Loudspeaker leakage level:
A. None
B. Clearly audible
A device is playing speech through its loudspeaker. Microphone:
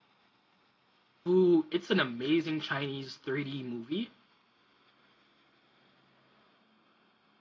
A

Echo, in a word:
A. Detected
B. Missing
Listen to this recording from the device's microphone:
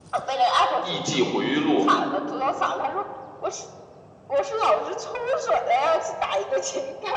A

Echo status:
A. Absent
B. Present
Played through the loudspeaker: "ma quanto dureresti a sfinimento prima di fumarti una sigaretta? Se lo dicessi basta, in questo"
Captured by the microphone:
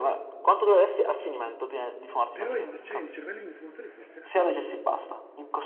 B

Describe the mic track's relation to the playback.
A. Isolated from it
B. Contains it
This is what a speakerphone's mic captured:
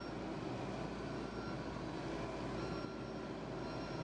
A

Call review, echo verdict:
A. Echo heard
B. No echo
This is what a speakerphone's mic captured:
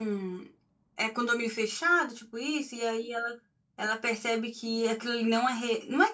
B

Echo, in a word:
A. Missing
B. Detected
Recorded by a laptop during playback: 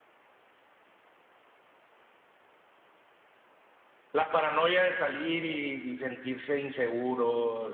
A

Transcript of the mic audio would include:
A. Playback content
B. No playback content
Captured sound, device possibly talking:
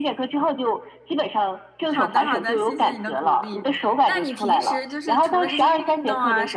A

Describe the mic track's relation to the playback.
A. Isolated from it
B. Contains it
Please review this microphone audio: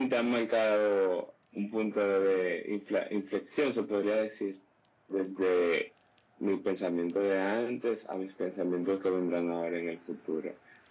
B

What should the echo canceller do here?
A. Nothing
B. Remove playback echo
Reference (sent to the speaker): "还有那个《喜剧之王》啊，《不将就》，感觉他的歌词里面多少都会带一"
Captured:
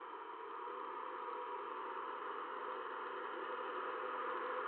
A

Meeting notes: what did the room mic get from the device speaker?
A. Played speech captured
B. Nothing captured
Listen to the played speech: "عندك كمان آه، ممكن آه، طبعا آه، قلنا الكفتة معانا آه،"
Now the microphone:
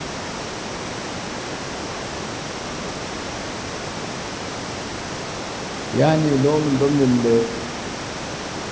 B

